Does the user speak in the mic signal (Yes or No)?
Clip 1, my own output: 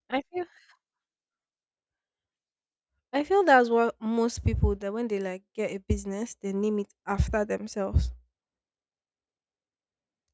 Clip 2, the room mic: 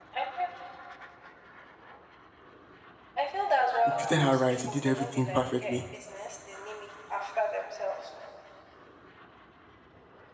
Yes